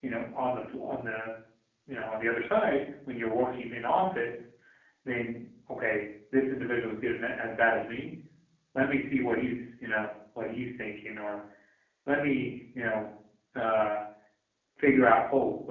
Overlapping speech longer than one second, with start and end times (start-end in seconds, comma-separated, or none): none